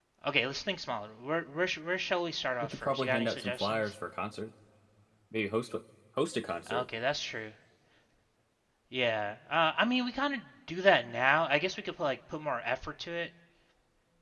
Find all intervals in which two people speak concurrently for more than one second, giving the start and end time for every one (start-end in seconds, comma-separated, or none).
2.6-3.9